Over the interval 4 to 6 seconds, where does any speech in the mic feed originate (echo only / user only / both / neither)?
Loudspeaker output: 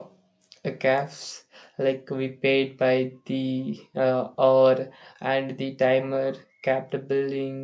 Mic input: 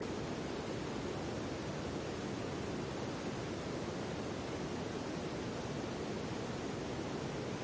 neither